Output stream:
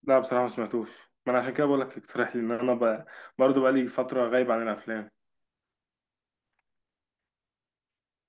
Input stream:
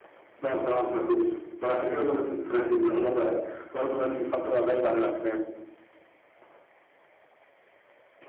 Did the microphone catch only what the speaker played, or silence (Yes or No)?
Yes